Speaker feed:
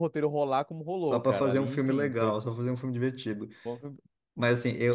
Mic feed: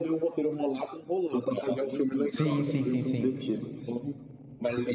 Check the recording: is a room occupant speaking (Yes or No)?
Yes